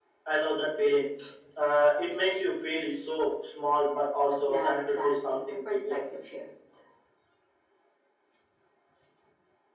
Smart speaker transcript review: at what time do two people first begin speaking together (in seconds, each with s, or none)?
4.5 s